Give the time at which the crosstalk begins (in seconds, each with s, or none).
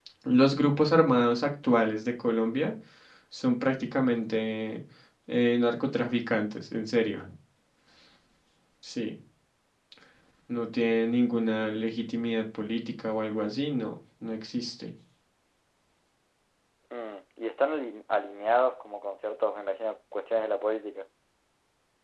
none